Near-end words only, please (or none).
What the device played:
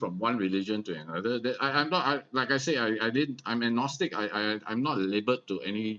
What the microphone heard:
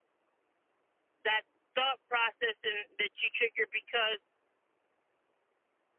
that thought process and that you trigger because